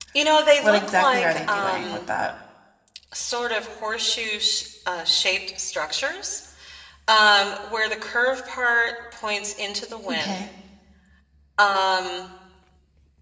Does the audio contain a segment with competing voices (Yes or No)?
Yes